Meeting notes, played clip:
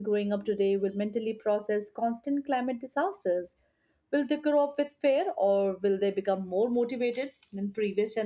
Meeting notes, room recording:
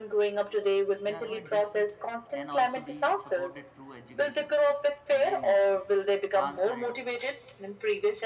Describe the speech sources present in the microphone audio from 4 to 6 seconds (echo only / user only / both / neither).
both